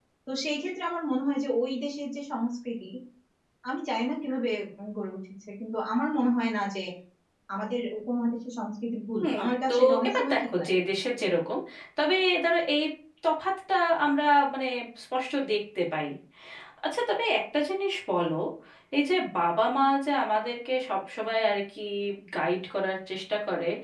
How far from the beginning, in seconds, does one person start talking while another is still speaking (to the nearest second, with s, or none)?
9 s